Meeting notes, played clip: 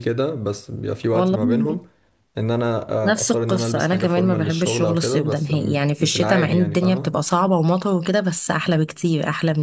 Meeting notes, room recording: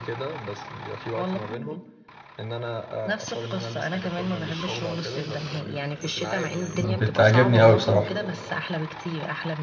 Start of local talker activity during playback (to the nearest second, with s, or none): 7 s